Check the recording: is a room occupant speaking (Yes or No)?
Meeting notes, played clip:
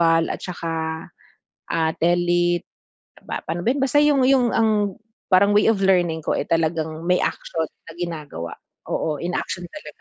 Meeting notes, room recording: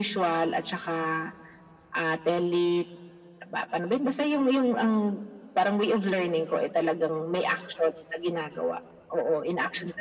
No